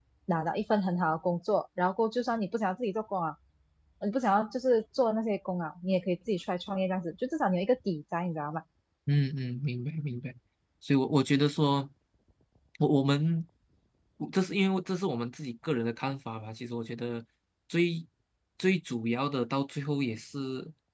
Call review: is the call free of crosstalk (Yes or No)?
Yes